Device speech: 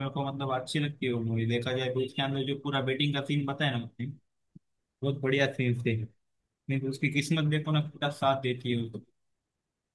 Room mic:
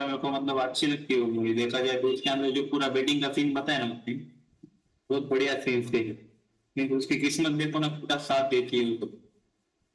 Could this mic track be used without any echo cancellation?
No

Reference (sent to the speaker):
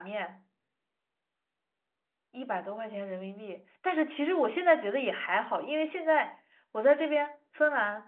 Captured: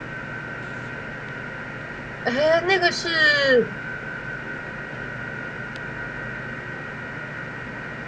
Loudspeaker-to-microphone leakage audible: No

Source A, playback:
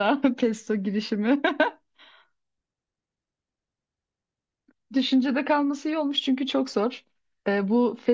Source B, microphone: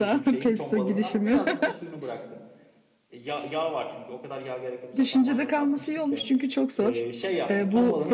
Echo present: Yes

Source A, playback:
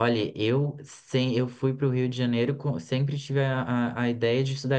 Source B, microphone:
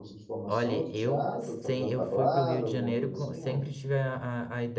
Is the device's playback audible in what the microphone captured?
Yes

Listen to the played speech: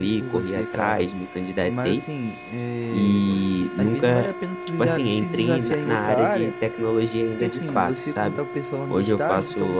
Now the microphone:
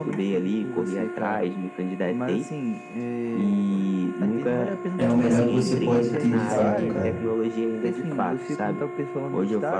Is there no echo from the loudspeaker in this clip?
No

